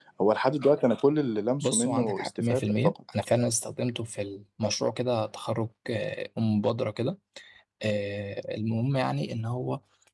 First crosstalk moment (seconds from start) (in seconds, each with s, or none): 1.6 s